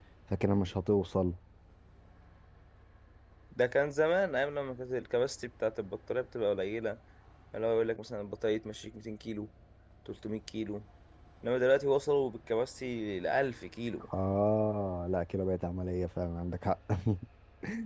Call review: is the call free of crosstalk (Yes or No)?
Yes